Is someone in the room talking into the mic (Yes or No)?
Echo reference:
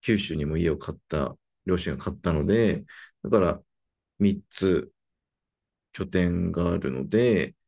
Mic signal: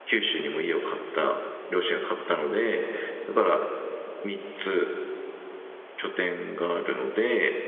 No